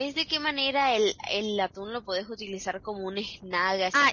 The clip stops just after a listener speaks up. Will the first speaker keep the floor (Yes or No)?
No